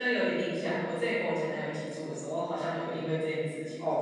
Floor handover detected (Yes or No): Yes